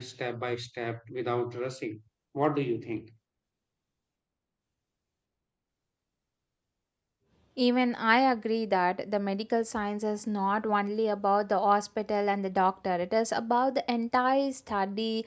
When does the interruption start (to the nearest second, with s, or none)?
none